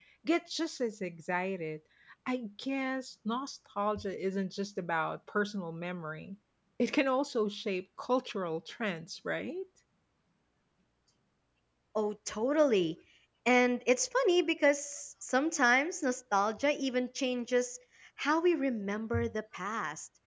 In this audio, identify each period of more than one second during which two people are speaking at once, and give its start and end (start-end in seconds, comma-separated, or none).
none